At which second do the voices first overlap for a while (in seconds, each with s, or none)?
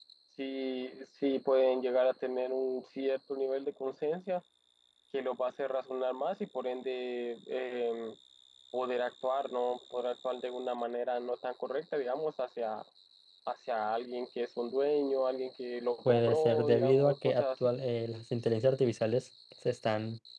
16.0 s